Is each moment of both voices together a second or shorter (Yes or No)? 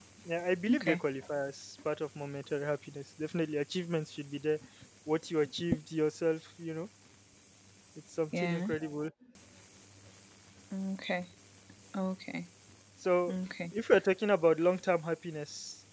Yes